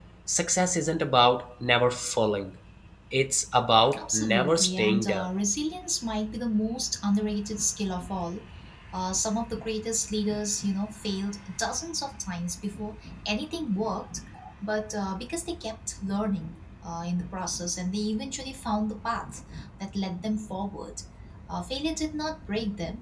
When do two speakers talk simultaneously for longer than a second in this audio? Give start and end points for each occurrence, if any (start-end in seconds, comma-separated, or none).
4.0-5.3